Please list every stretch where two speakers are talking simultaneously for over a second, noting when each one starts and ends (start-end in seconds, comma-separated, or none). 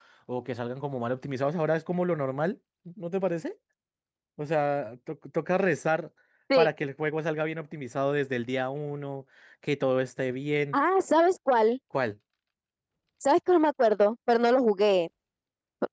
none